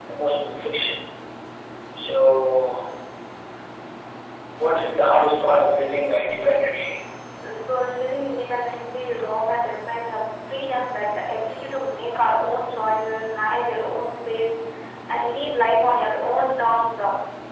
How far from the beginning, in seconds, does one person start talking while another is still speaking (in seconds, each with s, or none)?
none